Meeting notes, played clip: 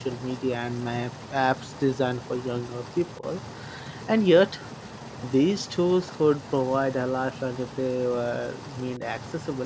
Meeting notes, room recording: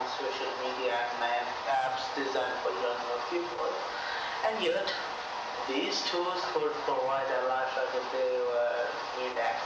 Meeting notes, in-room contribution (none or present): none